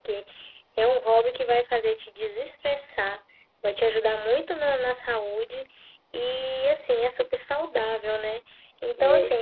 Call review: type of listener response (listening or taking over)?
listening